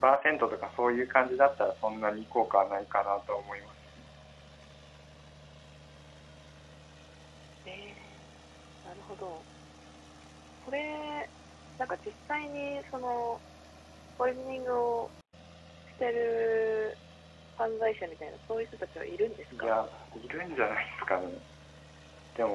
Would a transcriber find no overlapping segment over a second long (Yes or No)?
Yes